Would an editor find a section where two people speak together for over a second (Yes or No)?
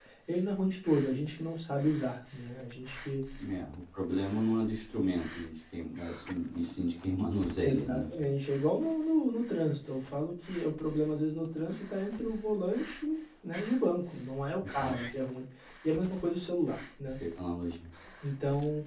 No